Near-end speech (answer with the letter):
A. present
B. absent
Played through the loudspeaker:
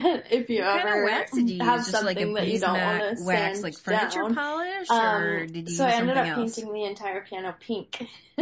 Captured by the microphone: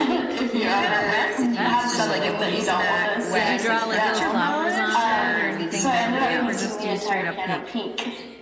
A